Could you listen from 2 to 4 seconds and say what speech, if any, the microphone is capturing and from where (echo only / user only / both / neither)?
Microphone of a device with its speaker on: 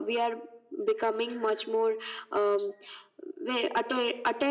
echo only